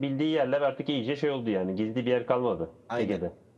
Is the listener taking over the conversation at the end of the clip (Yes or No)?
Yes